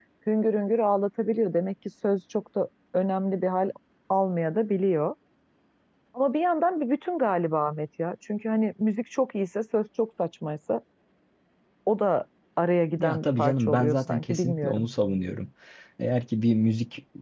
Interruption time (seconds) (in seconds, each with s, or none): 13.0 s